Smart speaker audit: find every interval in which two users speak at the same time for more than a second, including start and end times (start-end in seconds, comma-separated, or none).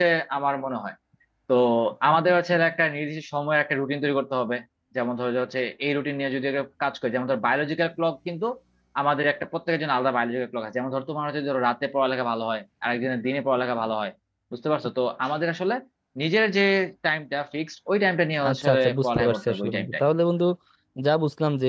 18.5-20.0